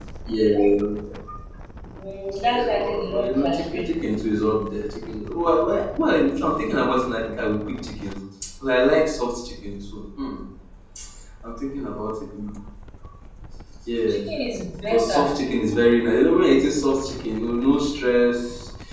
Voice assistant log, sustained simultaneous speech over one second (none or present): present